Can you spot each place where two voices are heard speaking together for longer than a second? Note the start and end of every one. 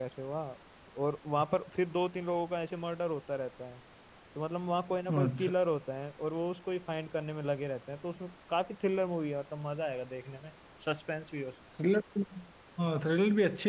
none

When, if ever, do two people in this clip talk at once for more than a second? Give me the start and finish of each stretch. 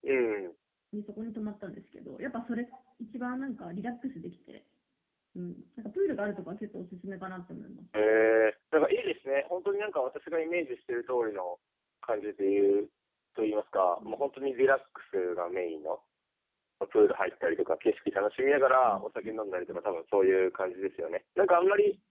none

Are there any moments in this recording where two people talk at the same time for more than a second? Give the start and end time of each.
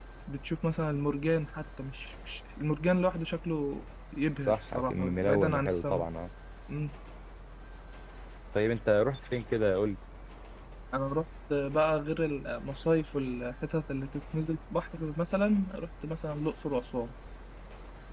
4.5-6.0

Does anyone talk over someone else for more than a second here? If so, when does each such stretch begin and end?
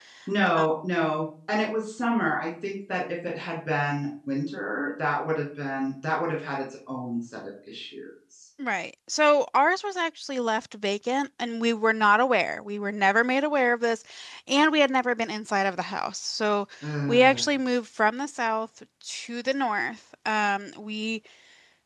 none

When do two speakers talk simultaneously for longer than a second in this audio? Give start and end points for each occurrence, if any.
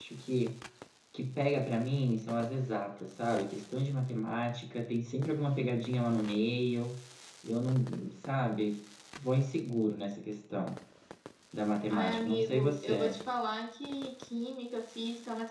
11.9-13.1

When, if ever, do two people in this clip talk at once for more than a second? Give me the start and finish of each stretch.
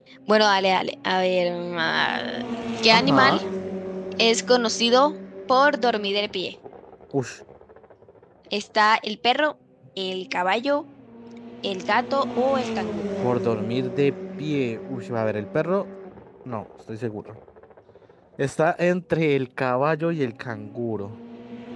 none

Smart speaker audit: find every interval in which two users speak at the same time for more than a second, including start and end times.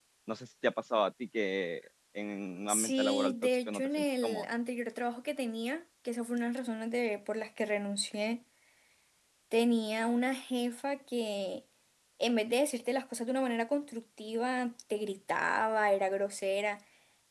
2.7-4.4

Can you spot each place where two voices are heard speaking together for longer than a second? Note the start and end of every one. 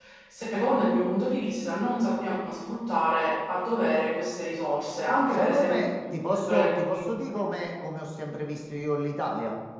5.3-7.4

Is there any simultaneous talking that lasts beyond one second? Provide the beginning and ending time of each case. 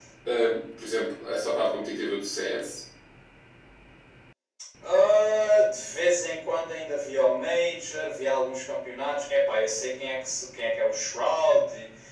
none

